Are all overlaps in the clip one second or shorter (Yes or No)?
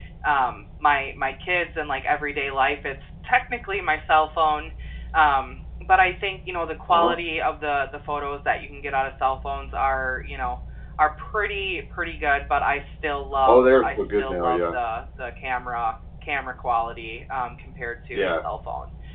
No